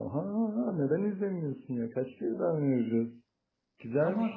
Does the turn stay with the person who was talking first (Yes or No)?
No